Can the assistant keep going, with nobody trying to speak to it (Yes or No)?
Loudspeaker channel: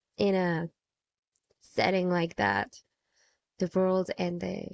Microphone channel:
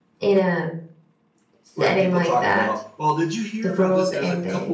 No